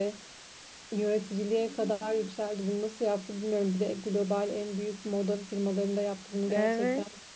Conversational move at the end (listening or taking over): taking over